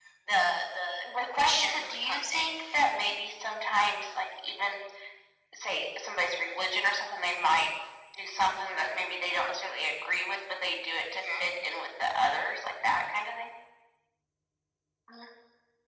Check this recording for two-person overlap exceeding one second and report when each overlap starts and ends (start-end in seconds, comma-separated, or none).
1.2-2.5